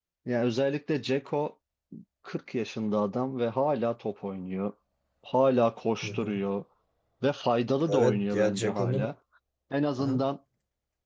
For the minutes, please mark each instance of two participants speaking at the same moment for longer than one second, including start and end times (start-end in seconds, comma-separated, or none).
7.9-9.1